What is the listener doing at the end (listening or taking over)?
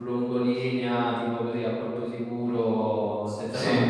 listening